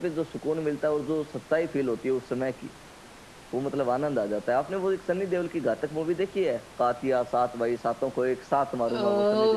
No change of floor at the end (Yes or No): No